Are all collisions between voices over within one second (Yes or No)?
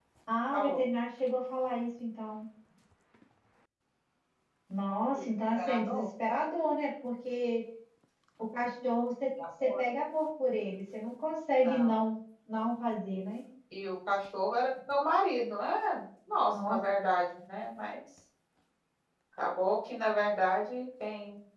Yes